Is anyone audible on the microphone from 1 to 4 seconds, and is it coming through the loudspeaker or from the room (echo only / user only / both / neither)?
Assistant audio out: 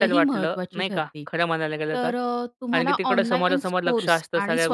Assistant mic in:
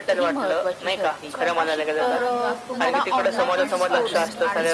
both